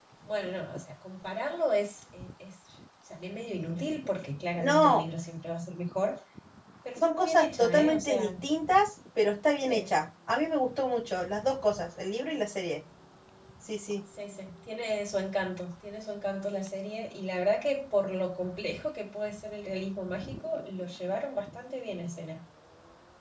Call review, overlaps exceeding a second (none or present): present